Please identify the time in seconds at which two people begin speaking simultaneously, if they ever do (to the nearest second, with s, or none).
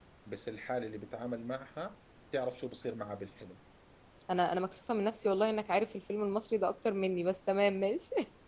none